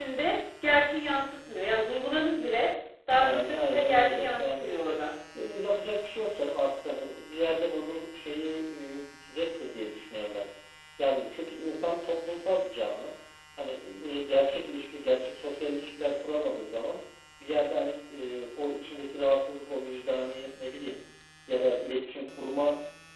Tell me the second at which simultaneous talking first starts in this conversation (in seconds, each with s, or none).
3.2 s